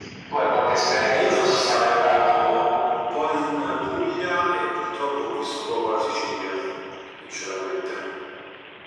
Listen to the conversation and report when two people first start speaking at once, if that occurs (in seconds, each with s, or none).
1.2 s